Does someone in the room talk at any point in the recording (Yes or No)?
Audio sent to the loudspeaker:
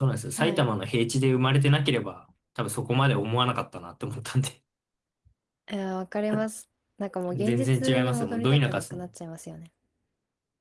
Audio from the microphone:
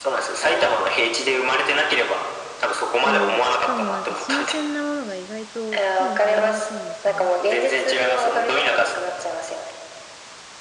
Yes